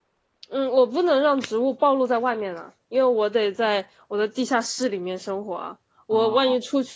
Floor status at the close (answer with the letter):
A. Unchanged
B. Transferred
A